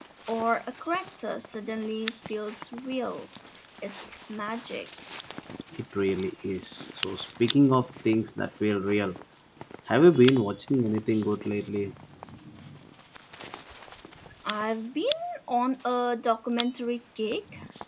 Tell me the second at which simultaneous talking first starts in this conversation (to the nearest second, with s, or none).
none